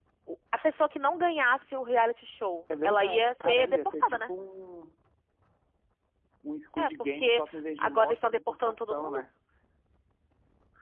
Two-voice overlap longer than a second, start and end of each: 2.8-4.2, 6.8-9.2

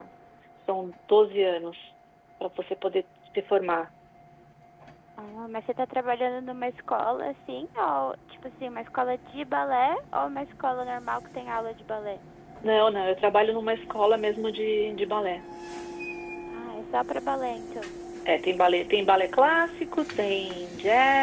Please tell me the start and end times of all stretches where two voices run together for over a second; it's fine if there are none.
none

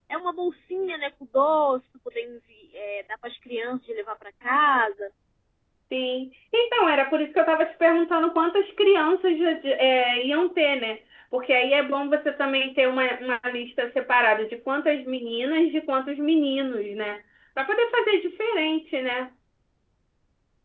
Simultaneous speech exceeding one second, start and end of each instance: none

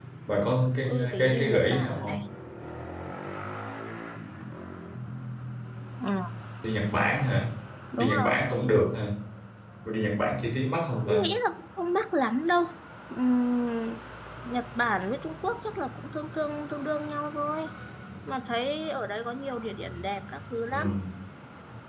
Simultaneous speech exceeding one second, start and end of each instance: 0.9-2.2

